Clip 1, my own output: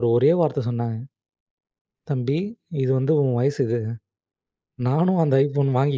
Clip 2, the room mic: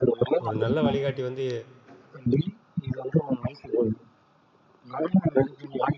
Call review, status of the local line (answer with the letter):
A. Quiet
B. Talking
B